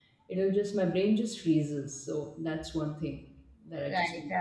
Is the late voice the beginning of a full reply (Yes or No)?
Yes